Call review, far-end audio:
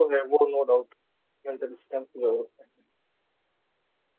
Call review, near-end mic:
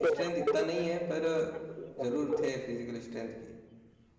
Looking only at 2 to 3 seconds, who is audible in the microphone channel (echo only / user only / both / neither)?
both